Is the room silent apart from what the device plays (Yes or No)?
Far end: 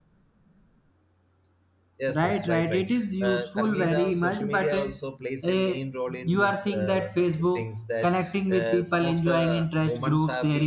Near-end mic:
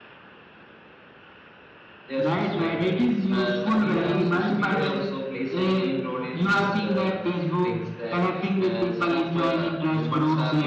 Yes